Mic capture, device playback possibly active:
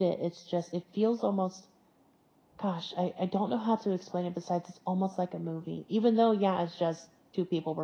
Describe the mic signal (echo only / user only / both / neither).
user only